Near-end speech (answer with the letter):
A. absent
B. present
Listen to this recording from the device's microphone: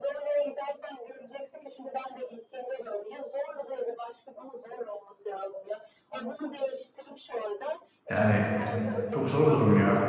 B